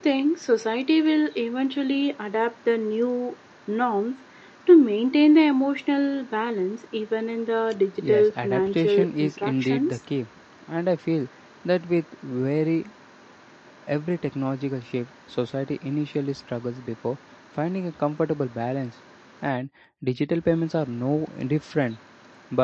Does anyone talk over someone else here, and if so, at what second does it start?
8.0 s

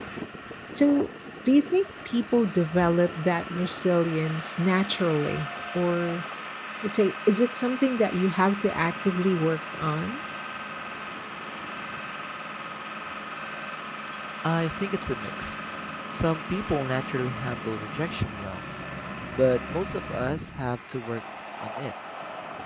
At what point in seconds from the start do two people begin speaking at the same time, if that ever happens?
none

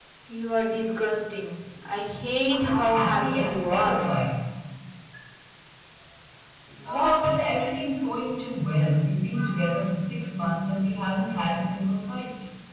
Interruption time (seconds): 2.5 s

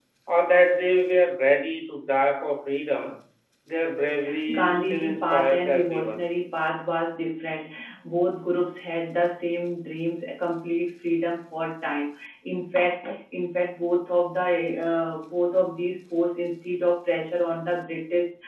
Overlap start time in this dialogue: 4.5 s

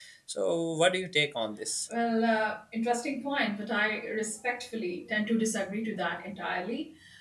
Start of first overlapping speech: none

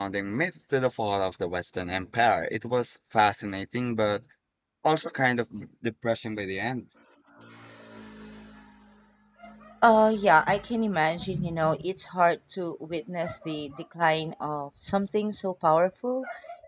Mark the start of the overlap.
none

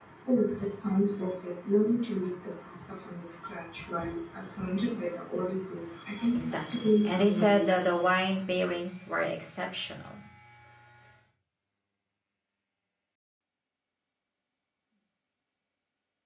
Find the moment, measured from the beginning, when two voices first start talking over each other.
6.3 s

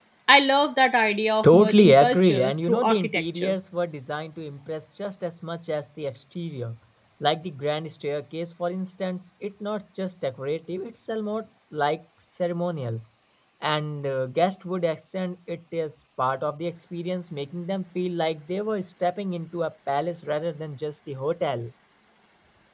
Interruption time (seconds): 1.4 s

